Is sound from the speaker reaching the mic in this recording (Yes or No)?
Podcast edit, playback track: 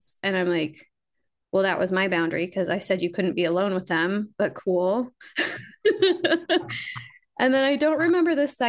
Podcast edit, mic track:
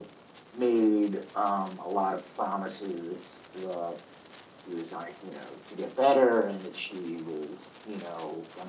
No